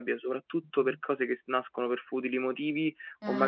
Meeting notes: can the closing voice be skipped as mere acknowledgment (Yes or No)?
Yes